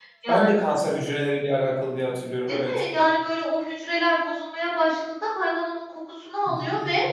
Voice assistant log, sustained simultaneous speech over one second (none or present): none